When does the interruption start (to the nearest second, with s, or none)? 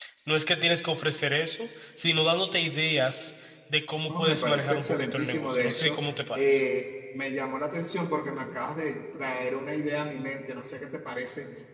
4 s